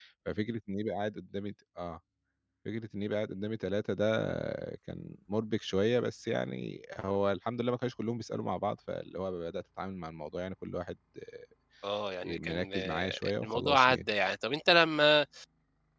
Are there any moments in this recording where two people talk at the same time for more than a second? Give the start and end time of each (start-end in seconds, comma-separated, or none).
12.2-14.0